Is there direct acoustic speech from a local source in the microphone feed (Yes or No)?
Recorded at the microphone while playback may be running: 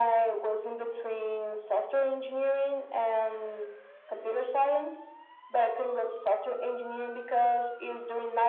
No